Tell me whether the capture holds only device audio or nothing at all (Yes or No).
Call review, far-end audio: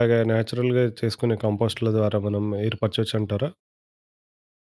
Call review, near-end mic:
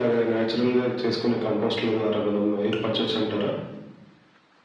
Yes